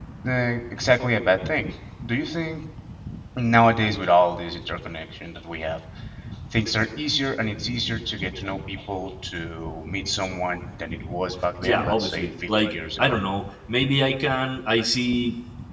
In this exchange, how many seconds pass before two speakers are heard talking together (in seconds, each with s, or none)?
11.6 s